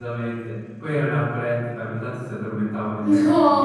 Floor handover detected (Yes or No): Yes